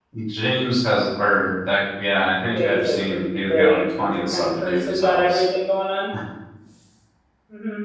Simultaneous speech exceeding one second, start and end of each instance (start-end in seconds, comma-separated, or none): 2.5-5.4